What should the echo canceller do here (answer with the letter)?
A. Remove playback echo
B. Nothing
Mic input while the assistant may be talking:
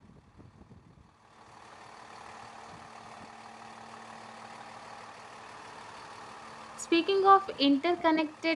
B